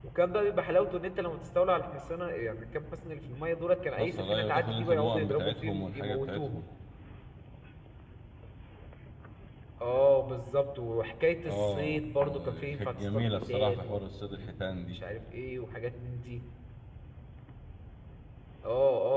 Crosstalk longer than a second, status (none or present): present